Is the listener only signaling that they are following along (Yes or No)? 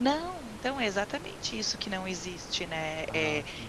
Yes